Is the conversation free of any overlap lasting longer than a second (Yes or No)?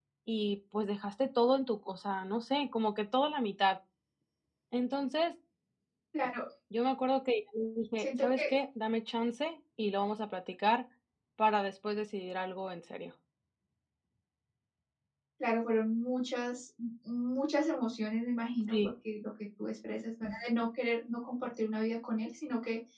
Yes